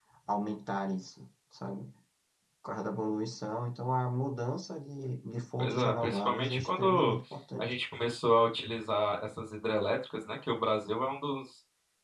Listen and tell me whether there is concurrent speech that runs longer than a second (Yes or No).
Yes